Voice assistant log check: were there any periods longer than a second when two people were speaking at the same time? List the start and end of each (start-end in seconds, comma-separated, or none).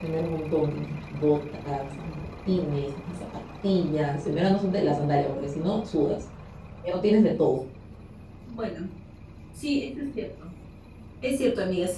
none